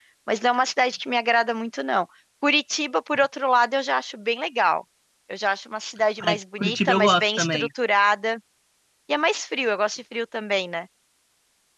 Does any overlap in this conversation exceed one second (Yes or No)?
Yes